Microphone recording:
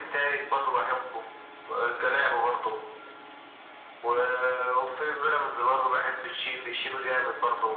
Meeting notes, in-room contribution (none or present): none